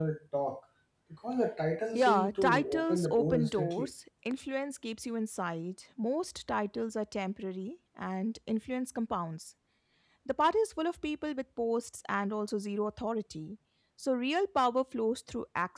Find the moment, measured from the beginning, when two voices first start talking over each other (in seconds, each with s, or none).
2.0 s